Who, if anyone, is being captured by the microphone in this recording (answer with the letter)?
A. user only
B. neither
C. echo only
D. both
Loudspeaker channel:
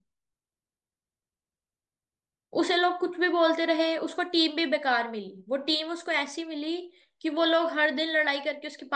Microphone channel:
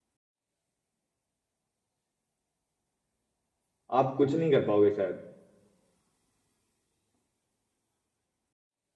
A